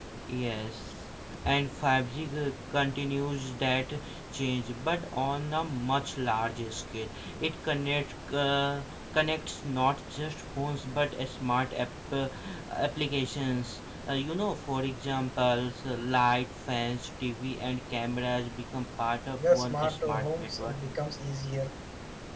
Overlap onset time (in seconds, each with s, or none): 19.4 s